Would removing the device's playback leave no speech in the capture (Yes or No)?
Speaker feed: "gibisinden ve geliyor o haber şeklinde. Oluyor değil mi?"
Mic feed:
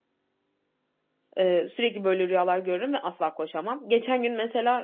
No